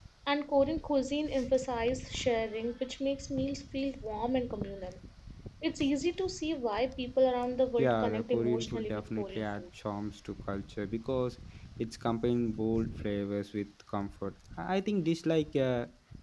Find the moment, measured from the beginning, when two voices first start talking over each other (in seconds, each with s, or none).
7.8 s